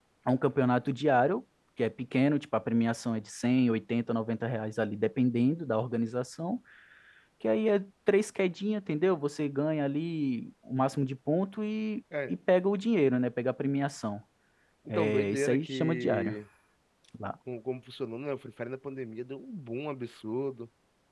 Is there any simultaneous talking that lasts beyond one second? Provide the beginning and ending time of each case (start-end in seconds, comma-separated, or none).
14.9-16.3